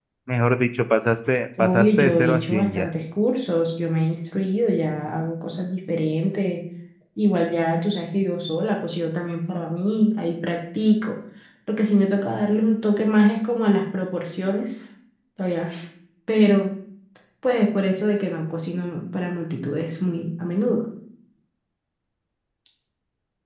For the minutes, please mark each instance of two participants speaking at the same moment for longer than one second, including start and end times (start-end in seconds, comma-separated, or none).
1.6-2.9